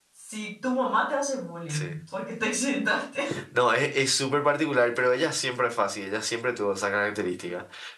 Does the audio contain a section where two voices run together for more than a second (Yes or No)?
No